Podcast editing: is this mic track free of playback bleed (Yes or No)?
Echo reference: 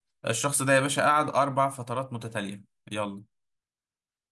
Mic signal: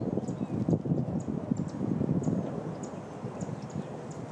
Yes